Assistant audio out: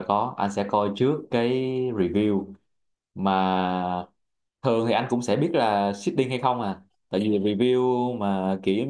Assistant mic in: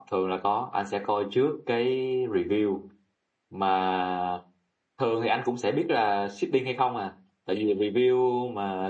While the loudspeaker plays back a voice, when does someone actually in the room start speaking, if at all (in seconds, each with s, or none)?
none